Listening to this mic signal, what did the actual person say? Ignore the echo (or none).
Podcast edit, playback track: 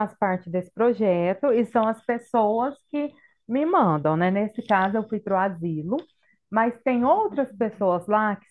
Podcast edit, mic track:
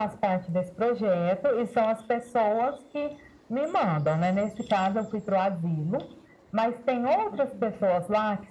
none